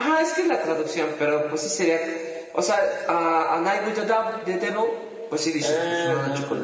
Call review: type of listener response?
taking over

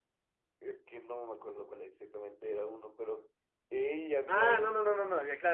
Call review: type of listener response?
taking over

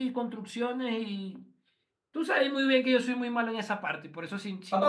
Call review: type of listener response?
taking over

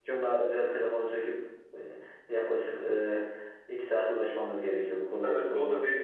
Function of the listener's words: taking over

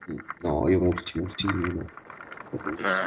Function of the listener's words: listening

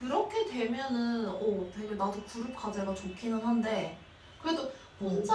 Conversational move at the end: listening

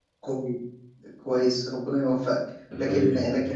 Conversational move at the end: listening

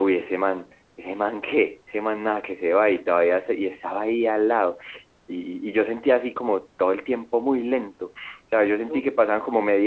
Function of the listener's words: listening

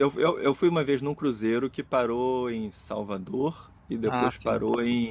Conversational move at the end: listening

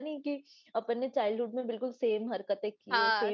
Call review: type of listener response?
taking over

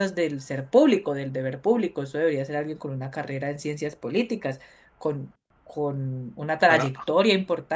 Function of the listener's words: listening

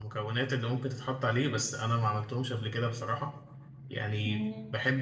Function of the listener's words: listening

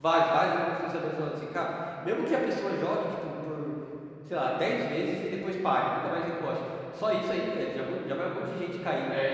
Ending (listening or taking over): taking over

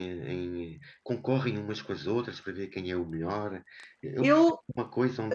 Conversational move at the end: listening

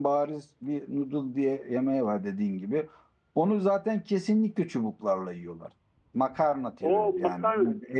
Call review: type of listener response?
taking over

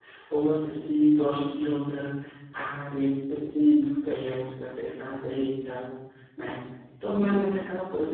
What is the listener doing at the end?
listening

